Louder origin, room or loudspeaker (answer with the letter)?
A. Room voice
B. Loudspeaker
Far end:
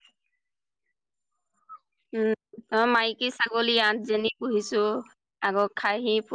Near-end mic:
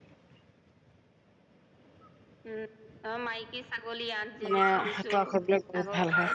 A